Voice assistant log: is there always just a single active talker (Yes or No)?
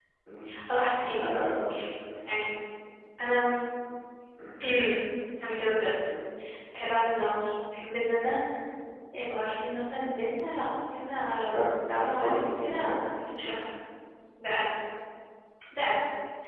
No